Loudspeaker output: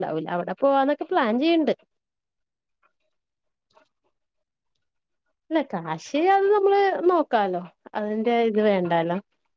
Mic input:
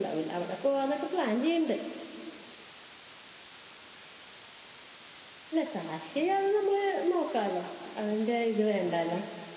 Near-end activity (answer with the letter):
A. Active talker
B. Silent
B